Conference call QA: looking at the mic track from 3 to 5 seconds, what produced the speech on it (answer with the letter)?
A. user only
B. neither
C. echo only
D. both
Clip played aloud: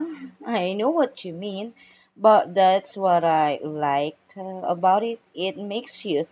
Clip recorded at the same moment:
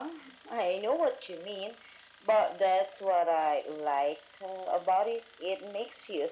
C